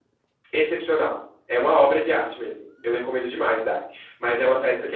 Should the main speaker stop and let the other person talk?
No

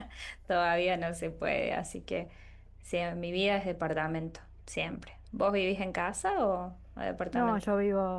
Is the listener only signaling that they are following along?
No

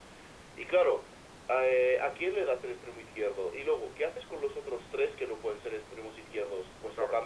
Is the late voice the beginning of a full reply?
No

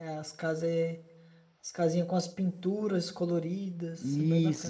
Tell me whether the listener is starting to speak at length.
Yes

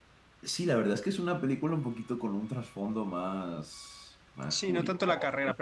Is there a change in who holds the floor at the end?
Yes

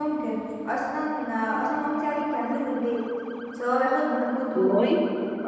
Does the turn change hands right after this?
No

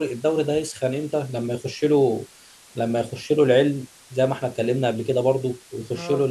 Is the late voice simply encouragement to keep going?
Yes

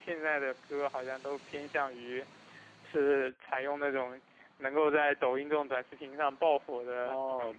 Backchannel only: No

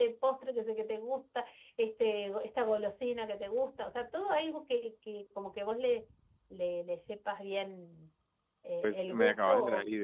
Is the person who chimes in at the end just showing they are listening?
No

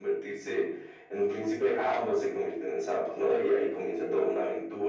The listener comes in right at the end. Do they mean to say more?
No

